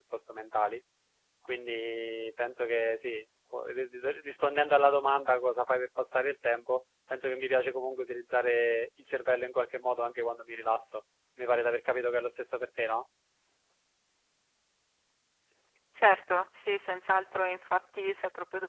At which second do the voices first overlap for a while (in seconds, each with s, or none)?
none